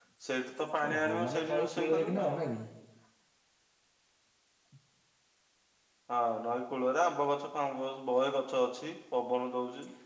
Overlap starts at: 1 s

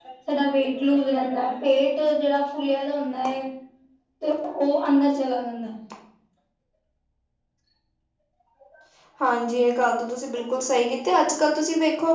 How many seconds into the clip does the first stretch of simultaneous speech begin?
none

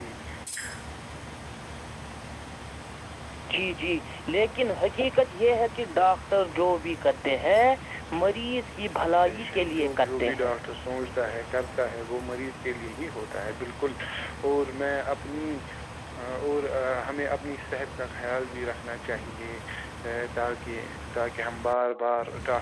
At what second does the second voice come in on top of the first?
9 s

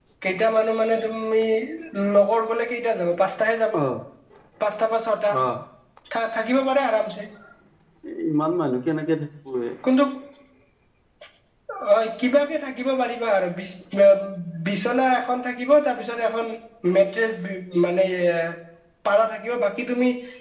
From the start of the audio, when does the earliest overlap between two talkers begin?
none

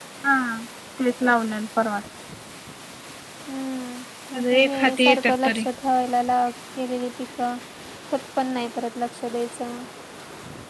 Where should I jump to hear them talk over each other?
4 s

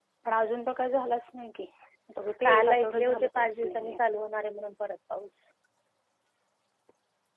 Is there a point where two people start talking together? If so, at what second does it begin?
2 s

